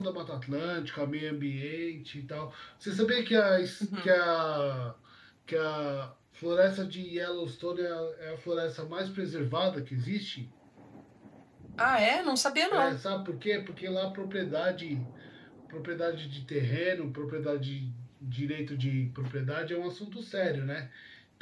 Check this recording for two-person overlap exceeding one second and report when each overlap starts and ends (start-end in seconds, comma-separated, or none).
none